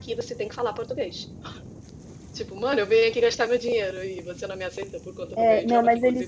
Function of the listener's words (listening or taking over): taking over